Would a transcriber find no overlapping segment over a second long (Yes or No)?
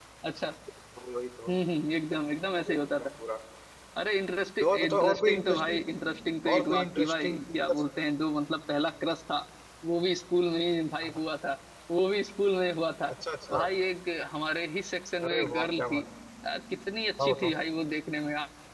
No